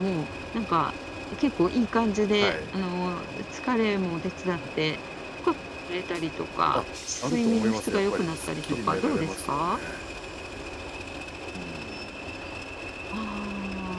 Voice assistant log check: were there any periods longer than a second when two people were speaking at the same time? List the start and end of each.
7.3-9.8

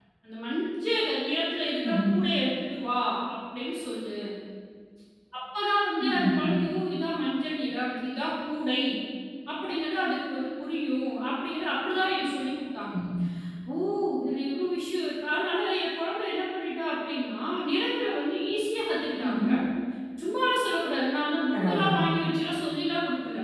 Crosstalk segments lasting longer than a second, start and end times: none

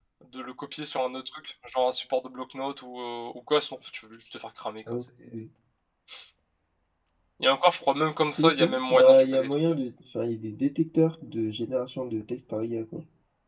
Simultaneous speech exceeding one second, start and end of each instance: 8.3-9.5

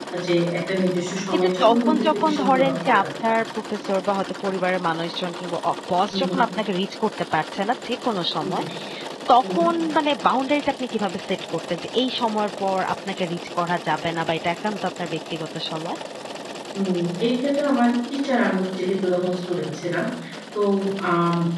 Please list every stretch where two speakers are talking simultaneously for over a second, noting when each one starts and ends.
1.3-3.3

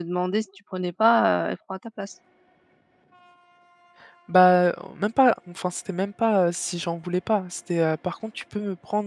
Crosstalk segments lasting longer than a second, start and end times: none

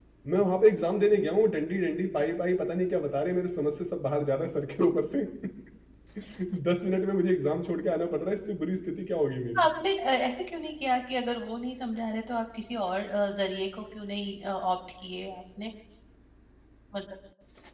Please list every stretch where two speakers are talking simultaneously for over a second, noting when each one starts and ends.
none

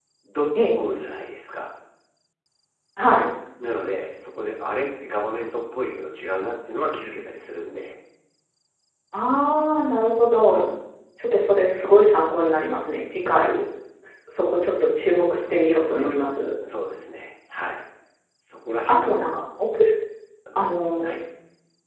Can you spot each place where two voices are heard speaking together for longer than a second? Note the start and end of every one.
none

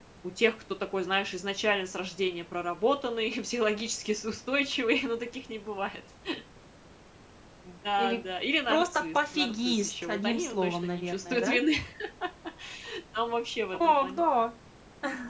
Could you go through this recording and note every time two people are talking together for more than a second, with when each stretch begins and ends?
8.7-11.6

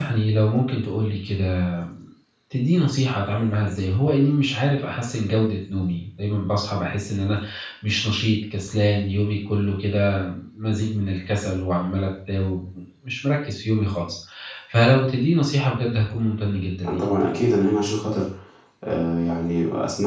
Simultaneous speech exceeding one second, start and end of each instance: none

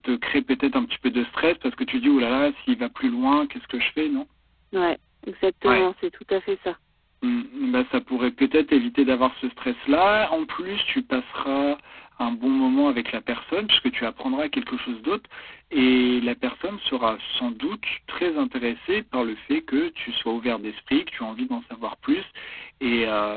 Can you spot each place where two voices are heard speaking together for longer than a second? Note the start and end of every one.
none

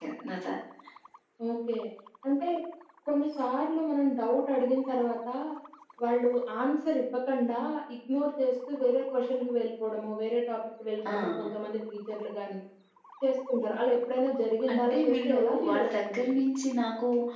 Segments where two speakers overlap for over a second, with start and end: 14.7-16.3

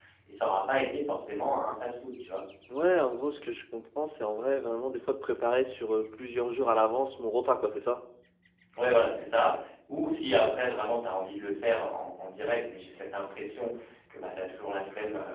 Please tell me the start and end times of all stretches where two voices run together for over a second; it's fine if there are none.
none

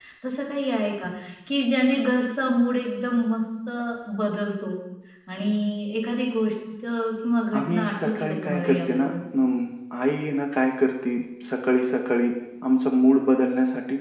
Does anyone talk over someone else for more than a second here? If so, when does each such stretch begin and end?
7.6-9.2

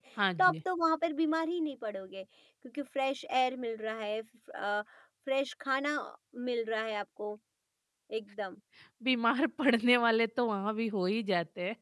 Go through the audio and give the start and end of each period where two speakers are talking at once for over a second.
none

